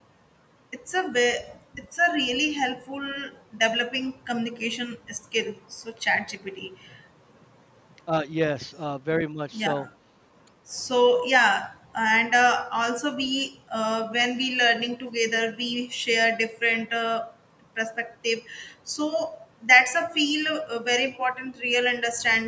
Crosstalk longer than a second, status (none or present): none